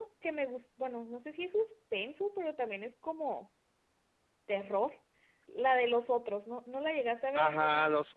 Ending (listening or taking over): taking over